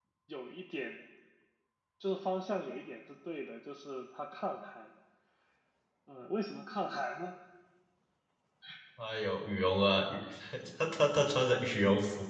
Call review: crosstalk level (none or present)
none